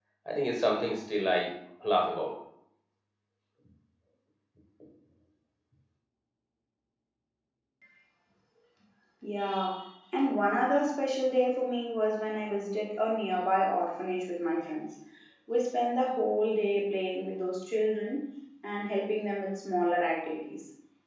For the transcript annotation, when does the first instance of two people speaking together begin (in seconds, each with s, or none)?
none